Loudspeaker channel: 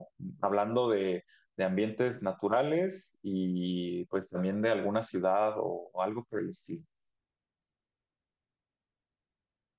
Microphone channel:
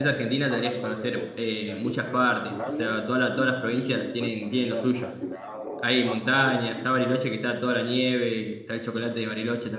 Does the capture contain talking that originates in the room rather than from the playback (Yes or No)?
Yes